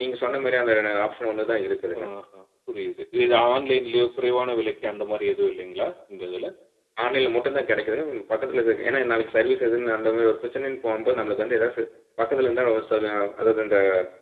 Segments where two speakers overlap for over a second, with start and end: none

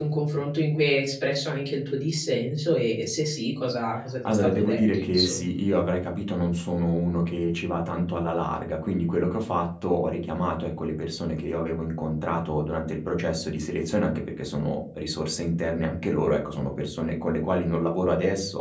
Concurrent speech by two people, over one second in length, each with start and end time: 4.3-5.6

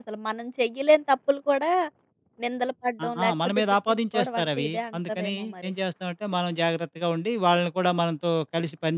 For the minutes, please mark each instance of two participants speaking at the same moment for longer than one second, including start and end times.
3.0-5.7

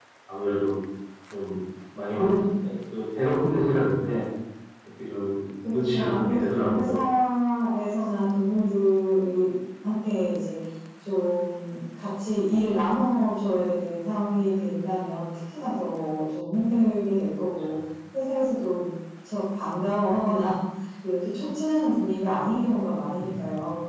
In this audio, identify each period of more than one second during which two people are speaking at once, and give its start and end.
5.7-7.0

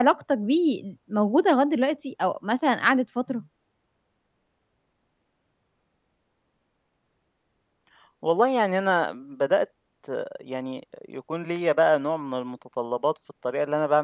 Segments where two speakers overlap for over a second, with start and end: none

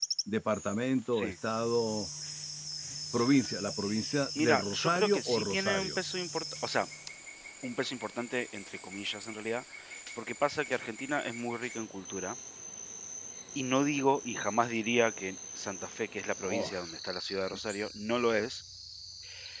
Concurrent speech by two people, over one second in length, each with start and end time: 4.4-6.0

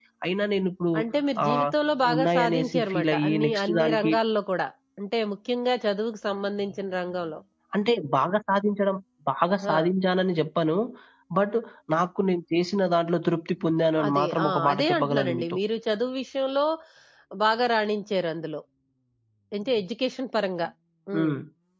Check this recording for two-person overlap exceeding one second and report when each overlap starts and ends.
2.1-4.1, 14.1-15.6

